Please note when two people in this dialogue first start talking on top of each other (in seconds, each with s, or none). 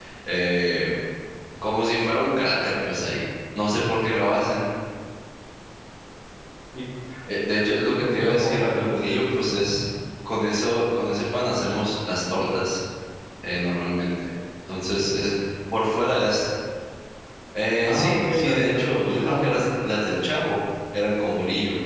7.9 s